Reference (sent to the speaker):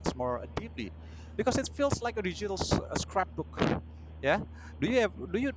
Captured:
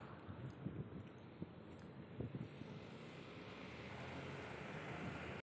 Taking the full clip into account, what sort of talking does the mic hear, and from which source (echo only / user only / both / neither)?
neither